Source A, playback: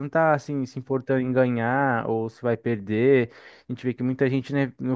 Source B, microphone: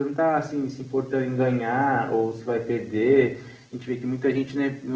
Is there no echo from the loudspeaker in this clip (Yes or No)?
No